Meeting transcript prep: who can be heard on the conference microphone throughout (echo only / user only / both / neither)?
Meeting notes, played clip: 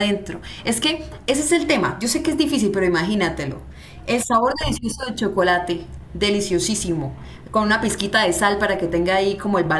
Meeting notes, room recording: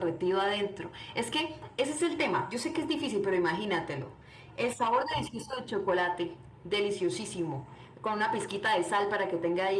echo only